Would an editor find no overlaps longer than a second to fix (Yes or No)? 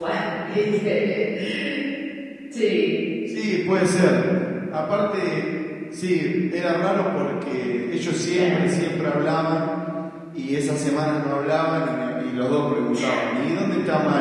Yes